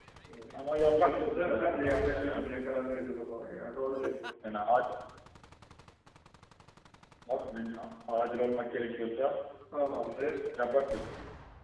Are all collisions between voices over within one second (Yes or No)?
No